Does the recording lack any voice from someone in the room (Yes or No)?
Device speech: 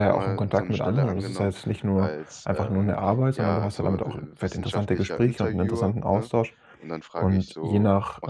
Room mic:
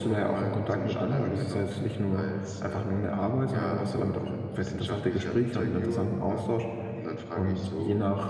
No